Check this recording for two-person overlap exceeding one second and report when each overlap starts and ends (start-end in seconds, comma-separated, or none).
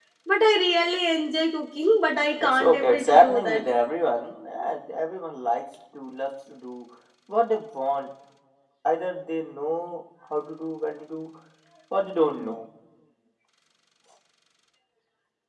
2.4-3.7